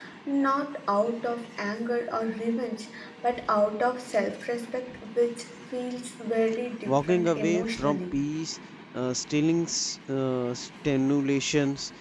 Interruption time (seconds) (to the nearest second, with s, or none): 7 s